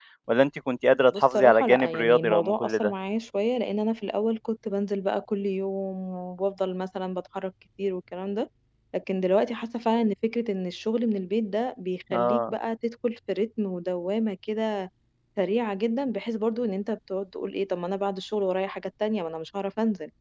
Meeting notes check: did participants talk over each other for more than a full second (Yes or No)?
Yes